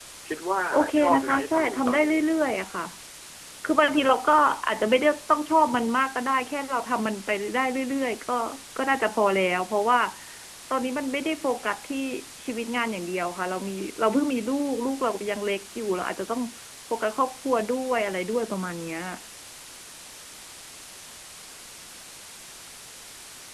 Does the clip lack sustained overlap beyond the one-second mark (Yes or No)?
No